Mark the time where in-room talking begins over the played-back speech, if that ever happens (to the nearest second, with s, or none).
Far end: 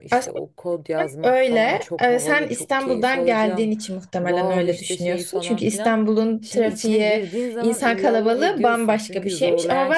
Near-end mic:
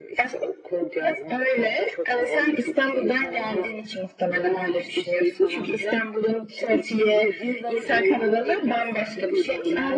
none